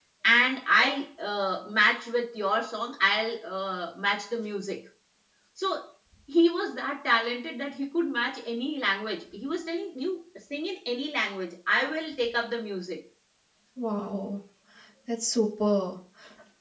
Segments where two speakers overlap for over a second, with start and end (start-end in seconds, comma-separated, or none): none